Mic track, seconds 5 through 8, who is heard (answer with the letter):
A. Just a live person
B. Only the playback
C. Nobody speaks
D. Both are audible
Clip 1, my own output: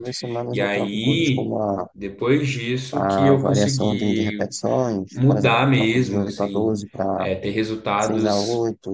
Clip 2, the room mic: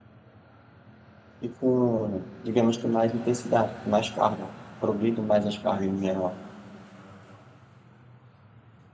A